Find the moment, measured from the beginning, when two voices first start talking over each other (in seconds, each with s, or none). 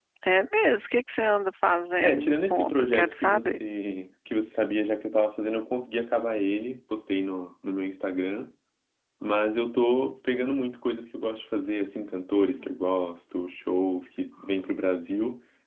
2.0 s